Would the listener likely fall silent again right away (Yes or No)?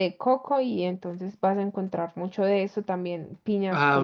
Yes